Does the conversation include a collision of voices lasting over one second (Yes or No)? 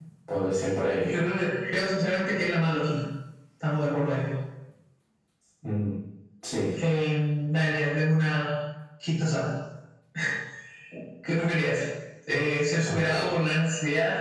No